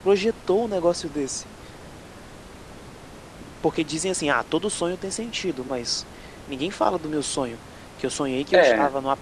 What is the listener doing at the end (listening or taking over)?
listening